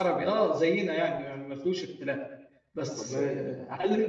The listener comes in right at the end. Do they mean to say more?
No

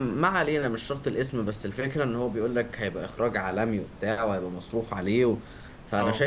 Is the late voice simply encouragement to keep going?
Yes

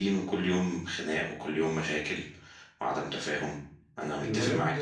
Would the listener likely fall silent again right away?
No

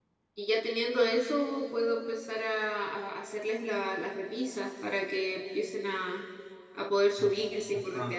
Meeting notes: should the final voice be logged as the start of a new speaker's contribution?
Yes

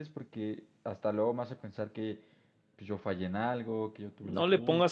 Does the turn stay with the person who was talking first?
No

